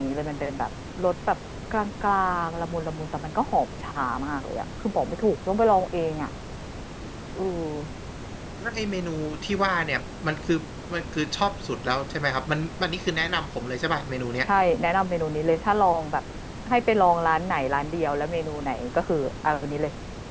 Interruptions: none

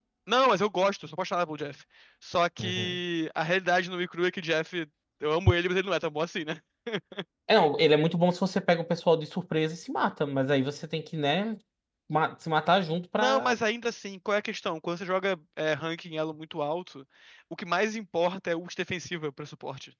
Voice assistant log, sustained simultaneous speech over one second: none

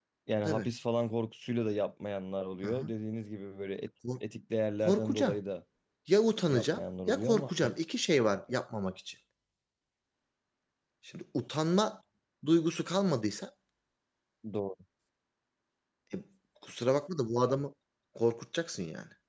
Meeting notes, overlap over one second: present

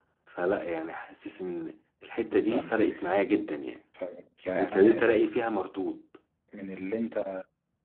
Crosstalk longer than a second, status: none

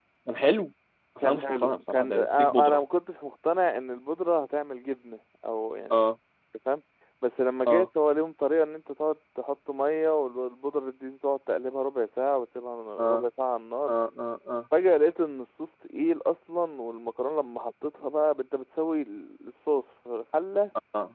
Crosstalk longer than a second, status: present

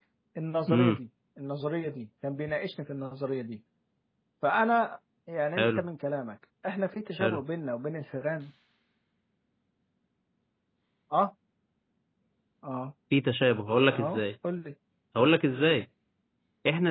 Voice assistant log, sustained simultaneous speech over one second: none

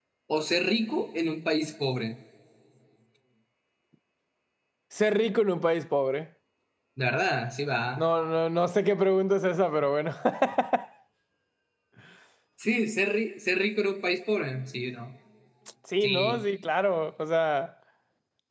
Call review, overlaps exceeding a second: none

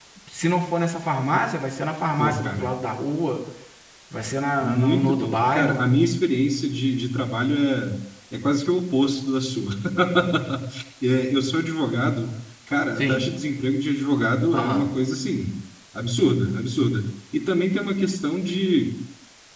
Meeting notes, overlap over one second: present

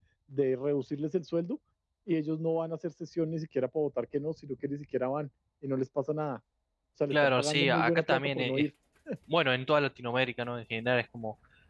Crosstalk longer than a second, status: present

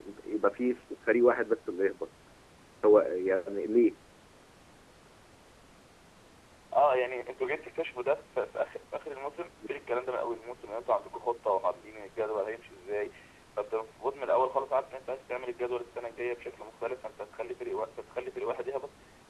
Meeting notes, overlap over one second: none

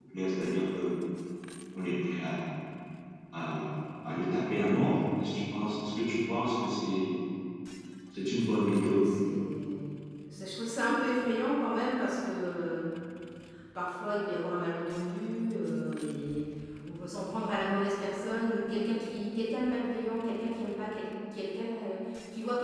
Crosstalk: none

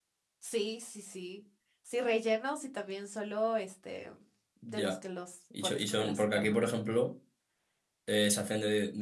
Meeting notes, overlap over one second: present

